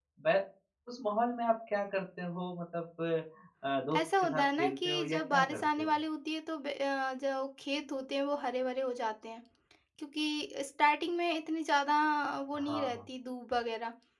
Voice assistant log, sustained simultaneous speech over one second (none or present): present